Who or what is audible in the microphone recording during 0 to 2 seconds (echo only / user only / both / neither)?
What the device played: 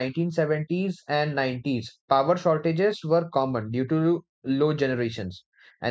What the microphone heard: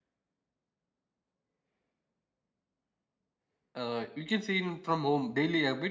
neither